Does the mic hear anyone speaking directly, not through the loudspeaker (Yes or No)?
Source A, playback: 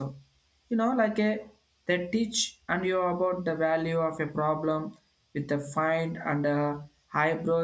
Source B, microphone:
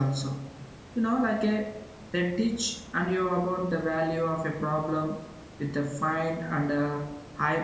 No